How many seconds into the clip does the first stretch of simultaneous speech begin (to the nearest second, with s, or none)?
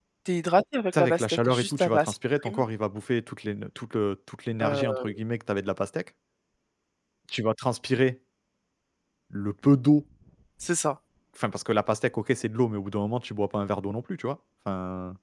1 s